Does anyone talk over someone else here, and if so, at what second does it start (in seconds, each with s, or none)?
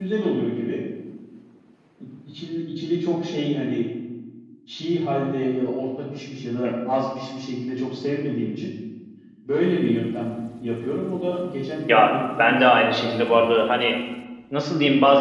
11.8 s